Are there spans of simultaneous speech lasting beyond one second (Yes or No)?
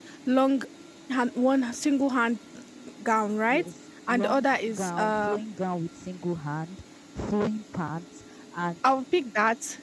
Yes